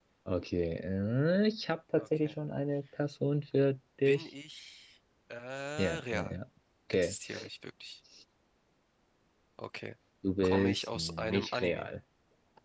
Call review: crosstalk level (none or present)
present